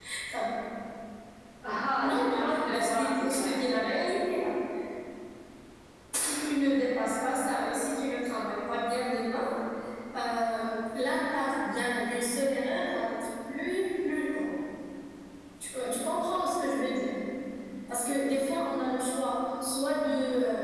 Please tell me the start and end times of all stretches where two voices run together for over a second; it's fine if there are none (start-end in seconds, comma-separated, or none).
2.0-3.9